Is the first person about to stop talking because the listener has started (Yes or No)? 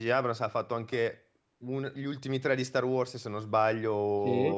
Yes